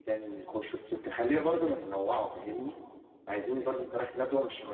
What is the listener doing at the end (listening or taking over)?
listening